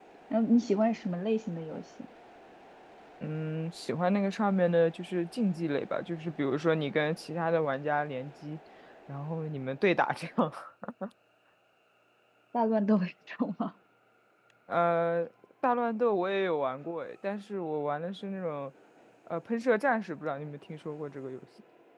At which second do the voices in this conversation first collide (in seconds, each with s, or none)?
none